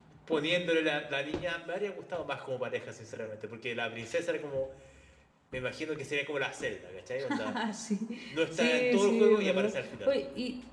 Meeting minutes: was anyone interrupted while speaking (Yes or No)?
Yes